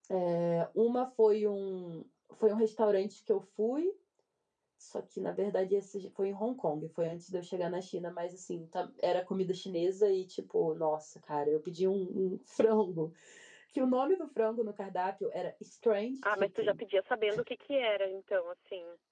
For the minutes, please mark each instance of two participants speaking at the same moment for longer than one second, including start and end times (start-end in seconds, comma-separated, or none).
none